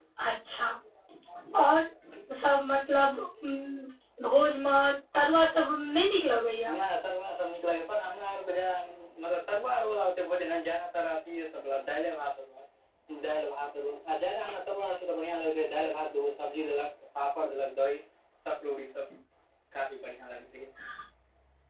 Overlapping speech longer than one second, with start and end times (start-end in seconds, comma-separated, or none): none